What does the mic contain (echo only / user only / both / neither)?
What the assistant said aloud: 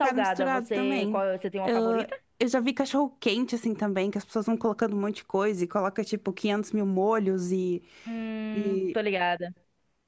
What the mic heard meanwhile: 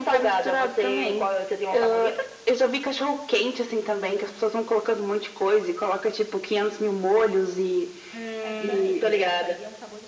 both